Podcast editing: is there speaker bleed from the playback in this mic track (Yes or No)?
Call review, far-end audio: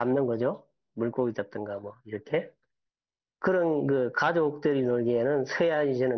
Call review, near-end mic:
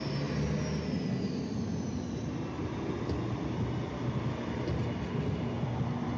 No